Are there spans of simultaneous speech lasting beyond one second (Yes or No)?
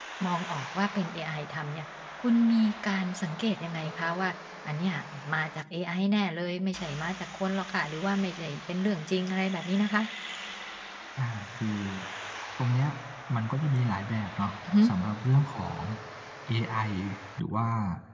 No